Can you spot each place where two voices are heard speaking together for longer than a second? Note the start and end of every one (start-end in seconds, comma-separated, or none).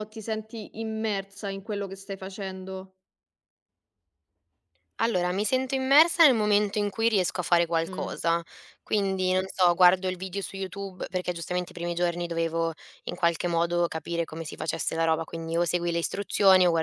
none